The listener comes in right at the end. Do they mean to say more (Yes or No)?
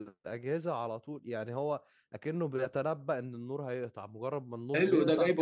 Yes